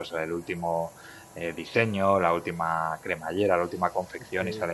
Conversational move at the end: listening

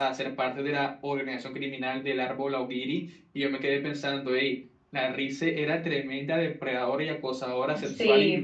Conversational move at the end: listening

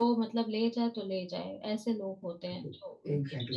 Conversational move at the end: taking over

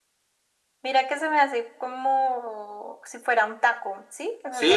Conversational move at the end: taking over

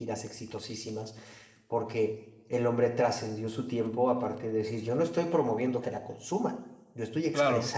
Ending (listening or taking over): listening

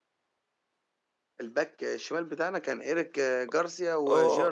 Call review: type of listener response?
taking over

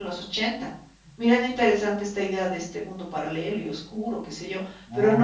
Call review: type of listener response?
listening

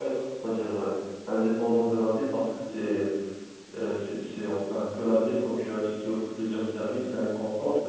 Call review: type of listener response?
listening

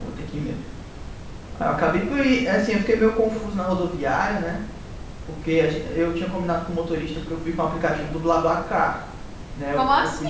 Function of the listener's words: listening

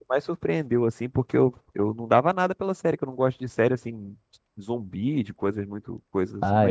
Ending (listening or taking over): taking over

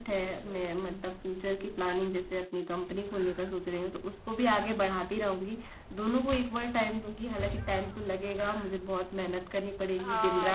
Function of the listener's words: taking over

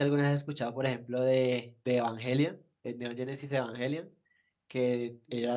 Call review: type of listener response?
listening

